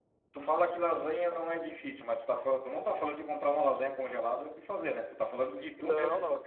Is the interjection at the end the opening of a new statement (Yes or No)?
Yes